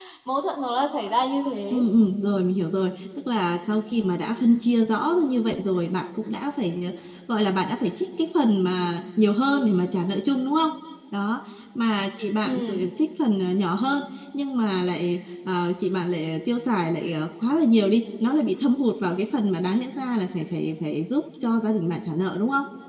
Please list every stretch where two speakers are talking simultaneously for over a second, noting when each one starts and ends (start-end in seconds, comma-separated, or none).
none